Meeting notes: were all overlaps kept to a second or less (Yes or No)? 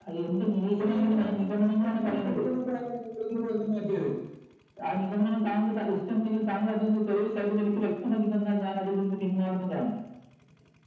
No